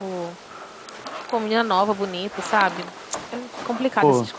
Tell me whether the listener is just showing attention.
Yes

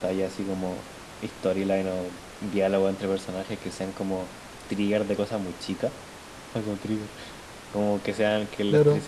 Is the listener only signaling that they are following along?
Yes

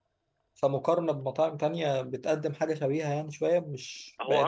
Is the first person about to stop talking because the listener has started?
No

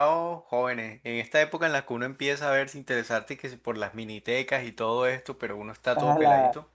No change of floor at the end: No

